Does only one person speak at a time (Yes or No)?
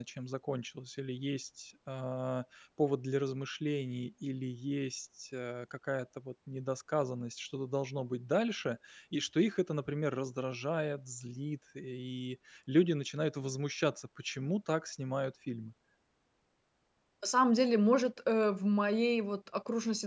Yes